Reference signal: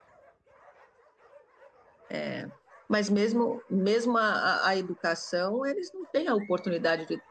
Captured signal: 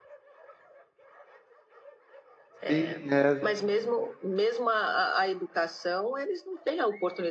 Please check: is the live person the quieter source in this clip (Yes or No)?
No